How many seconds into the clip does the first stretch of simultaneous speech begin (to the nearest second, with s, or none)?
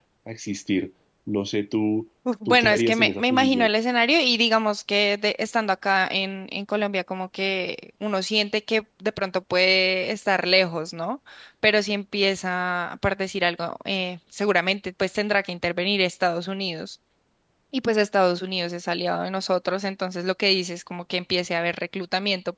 2 s